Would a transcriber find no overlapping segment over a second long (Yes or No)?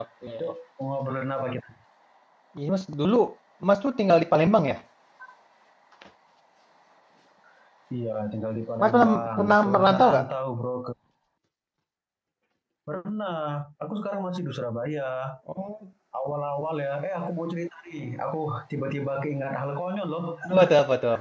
No